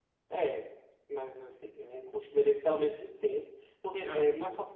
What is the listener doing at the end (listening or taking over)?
listening